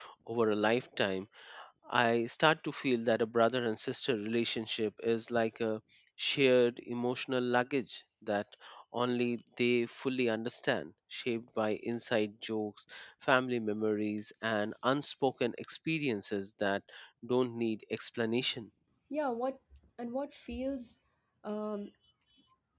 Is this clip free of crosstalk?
Yes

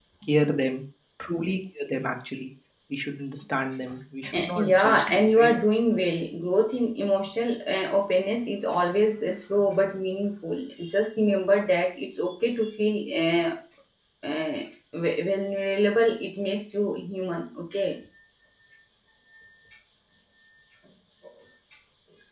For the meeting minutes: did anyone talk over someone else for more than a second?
Yes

